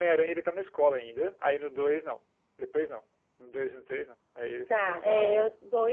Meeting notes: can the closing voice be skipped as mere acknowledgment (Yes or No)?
No